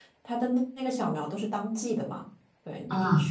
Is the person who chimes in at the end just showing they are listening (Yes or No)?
Yes